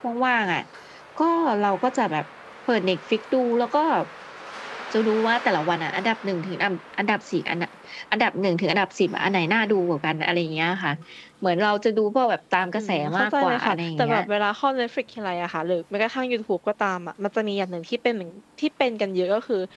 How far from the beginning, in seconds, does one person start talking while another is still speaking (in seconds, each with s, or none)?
12.8 s